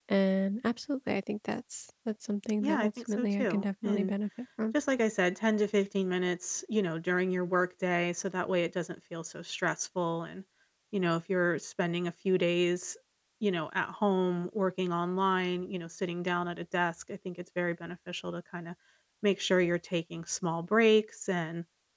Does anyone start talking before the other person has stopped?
Yes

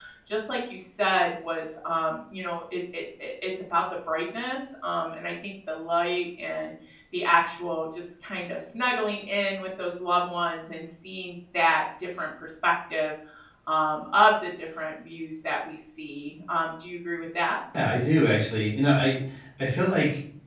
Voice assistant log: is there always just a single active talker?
Yes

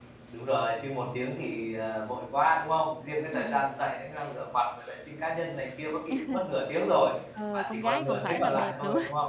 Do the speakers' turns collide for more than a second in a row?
Yes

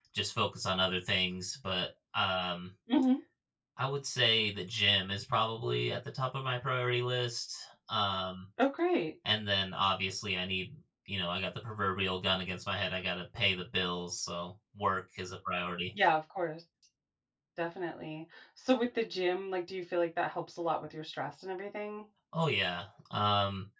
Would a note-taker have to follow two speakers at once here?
No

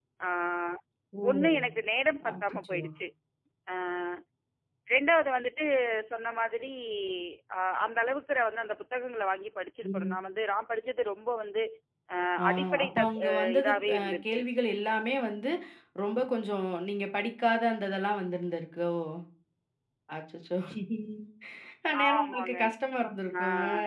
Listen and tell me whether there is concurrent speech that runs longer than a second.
Yes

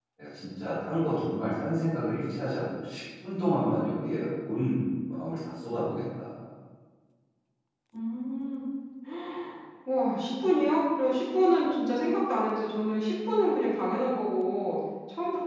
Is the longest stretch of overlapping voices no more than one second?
Yes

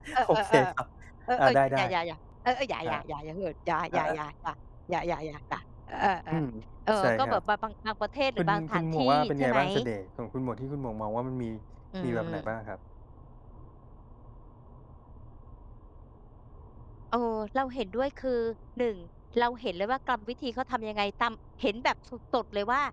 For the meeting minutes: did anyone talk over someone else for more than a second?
Yes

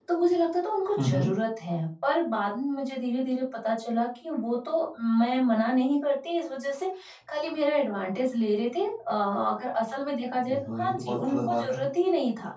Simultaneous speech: Yes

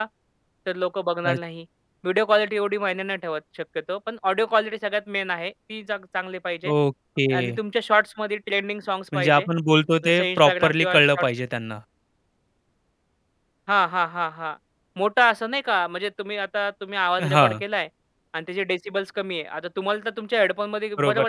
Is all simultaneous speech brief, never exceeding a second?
No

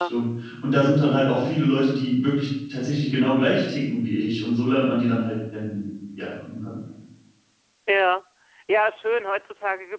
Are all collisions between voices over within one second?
Yes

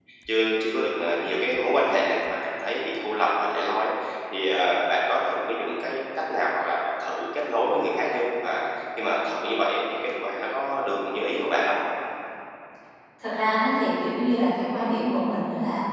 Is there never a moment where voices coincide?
Yes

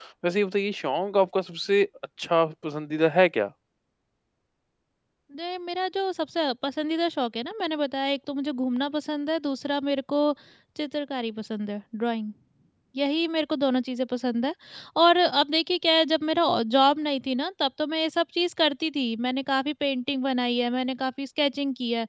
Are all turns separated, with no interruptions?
Yes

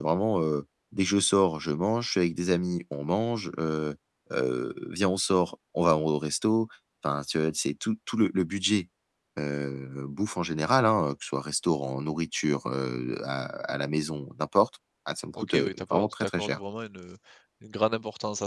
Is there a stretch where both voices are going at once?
Yes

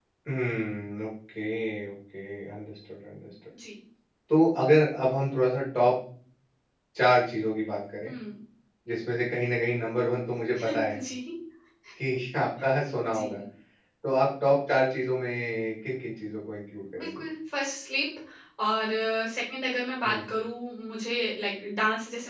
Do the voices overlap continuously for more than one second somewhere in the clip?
No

